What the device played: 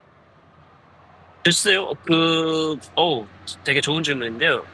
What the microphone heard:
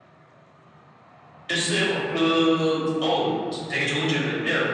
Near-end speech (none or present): none